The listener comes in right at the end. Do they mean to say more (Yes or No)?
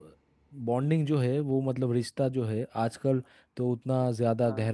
No